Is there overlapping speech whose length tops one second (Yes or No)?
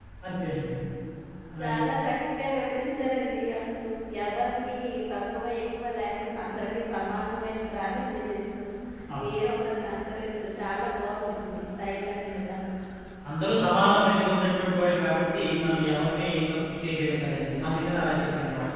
No